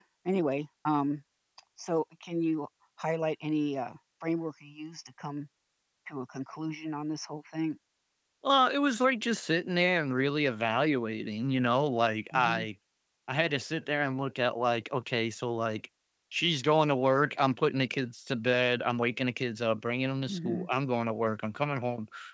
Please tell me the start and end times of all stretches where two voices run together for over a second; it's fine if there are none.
none

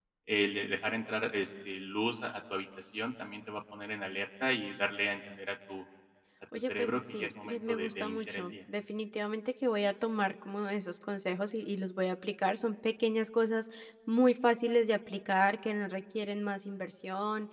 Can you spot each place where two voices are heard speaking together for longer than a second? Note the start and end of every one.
6.6-8.5

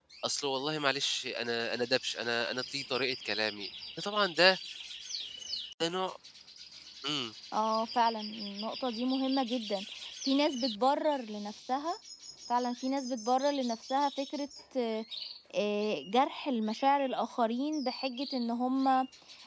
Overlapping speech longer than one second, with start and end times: none

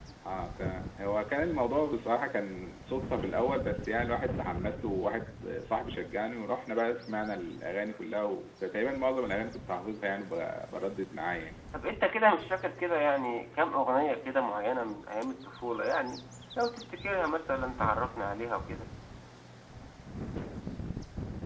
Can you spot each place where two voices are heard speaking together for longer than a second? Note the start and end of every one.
none

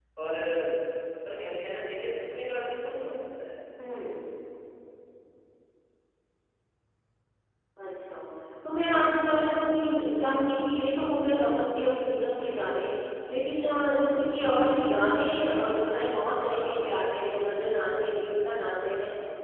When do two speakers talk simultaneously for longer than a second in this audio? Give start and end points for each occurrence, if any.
none

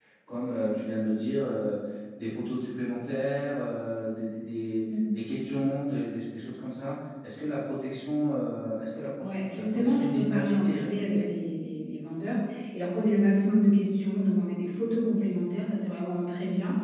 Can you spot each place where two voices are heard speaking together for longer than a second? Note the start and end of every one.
9.2-11.2

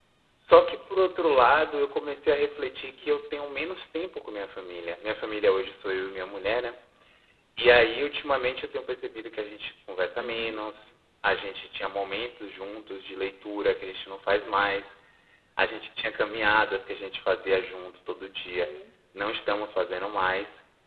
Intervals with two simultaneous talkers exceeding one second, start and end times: none

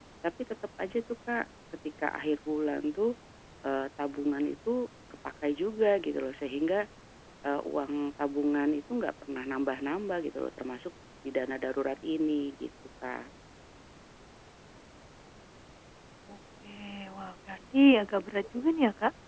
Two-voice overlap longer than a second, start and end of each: none

